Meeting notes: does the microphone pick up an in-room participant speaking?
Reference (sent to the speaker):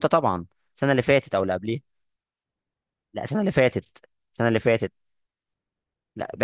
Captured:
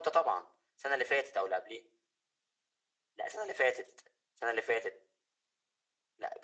No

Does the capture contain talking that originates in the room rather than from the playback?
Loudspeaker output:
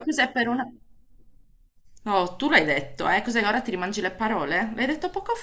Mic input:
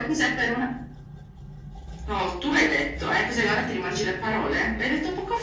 No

